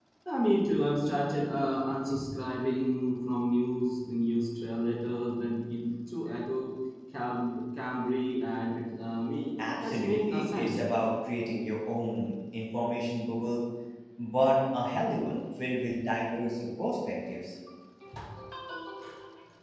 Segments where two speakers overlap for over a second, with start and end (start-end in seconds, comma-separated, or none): 9.6-10.8